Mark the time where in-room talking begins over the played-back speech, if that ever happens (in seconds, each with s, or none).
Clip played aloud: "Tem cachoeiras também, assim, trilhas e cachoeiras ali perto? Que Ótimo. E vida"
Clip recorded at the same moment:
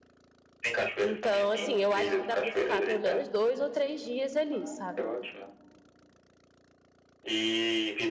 1.0 s